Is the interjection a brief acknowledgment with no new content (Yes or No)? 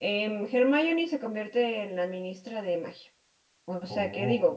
Yes